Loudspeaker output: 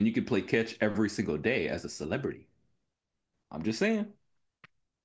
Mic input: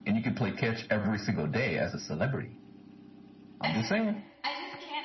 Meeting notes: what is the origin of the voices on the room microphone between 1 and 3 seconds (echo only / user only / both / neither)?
echo only